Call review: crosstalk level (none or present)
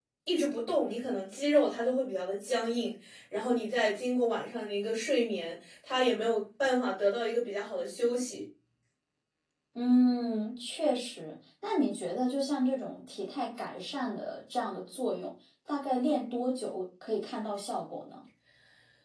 none